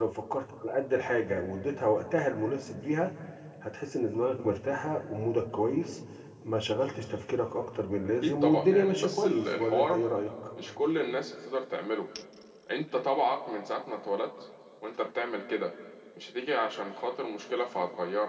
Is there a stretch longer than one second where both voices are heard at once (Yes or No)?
Yes